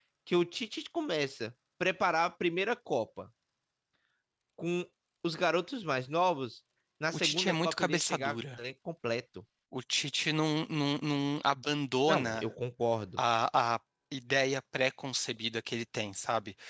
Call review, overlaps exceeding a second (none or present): present